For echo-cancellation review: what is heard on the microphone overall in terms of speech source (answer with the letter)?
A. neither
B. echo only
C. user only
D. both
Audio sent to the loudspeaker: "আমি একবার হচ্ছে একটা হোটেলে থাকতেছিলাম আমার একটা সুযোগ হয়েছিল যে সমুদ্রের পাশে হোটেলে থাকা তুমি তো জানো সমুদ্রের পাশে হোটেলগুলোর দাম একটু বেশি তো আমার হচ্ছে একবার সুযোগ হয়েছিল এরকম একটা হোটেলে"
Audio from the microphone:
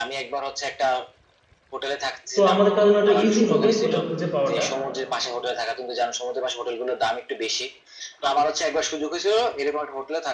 D